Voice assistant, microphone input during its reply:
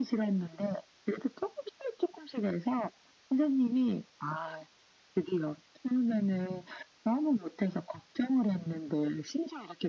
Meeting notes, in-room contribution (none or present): none